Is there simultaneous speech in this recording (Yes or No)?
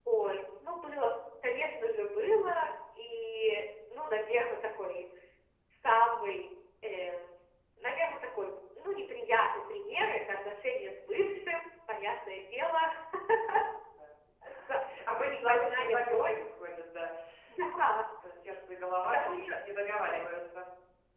Yes